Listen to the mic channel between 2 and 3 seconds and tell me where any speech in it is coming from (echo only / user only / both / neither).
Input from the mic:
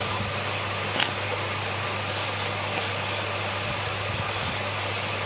neither